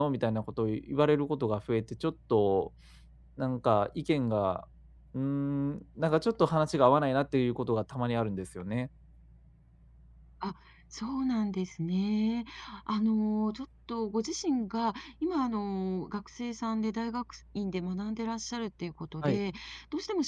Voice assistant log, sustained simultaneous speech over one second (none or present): none